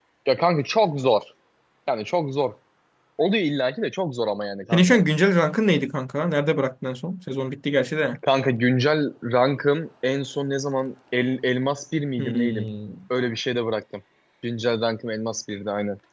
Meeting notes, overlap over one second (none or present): none